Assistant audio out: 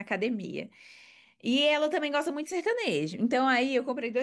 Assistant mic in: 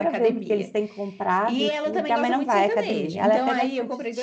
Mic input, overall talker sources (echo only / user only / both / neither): both